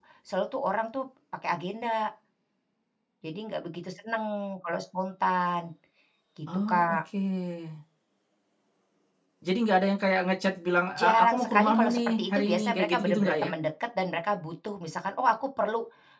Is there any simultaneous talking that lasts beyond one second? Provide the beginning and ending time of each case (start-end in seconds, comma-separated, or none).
11.0-13.5